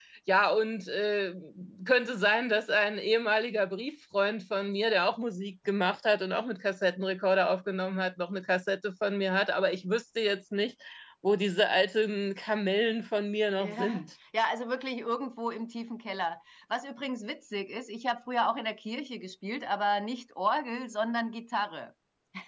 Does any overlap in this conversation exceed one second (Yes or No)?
No